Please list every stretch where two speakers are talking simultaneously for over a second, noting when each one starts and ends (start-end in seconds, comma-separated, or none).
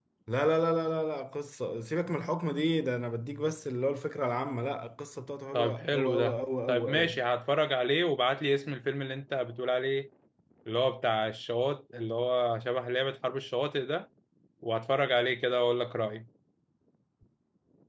5.5-7.2